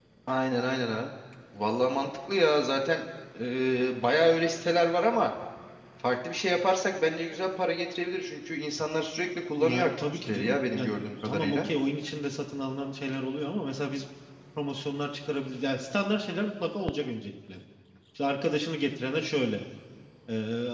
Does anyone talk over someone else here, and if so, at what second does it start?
9.6 s

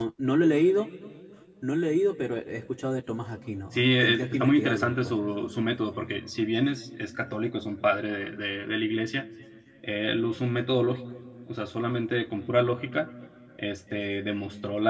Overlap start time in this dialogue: 3.7 s

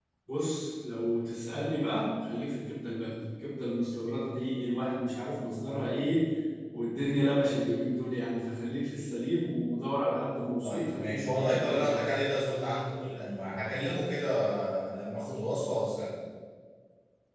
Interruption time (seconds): 10.6 s

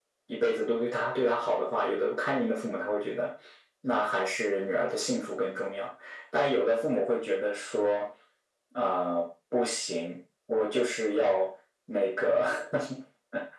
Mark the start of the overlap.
none

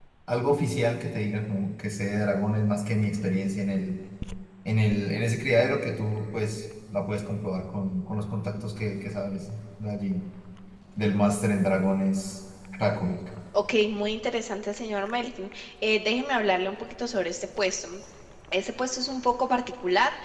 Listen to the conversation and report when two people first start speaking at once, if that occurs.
none

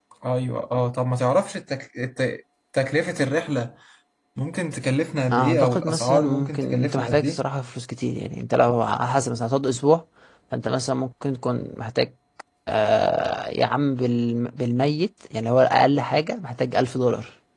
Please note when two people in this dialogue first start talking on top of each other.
5.3 s

